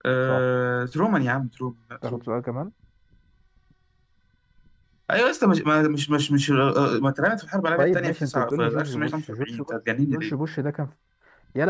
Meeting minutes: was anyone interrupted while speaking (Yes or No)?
Yes